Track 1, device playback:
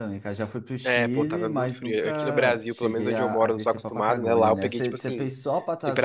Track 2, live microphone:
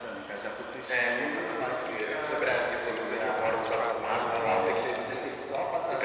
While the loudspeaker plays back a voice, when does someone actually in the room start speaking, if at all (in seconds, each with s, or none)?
3.6 s